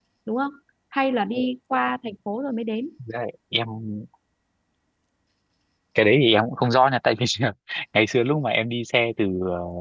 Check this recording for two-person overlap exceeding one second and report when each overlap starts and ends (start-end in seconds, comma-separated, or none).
none